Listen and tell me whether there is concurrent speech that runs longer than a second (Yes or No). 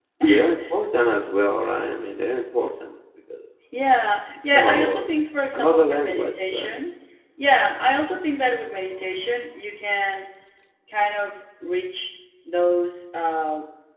Yes